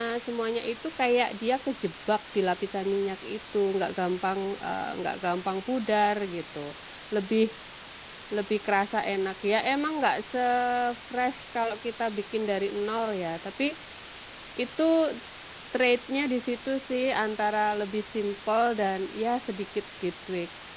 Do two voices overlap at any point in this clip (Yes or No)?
No